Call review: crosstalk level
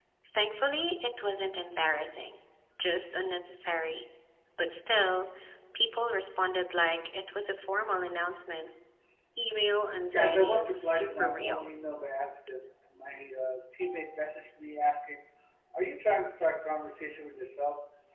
present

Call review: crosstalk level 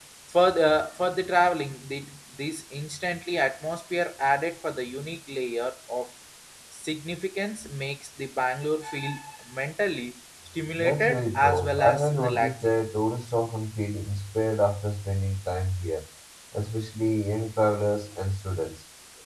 present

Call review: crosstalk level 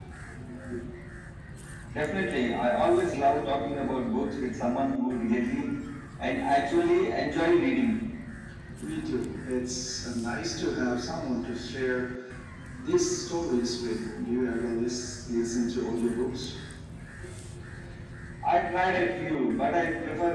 none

